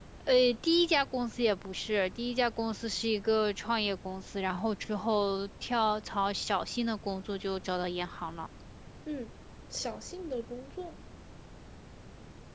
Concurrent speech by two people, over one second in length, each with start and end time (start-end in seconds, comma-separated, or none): none